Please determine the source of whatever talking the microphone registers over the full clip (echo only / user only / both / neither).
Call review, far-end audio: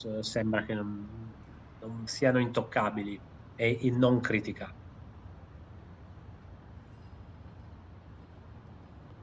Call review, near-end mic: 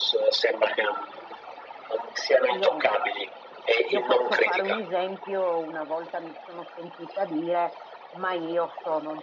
both